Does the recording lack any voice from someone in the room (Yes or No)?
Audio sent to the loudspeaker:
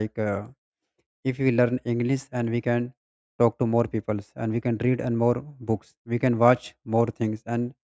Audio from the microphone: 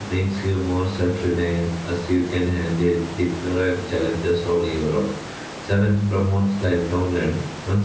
No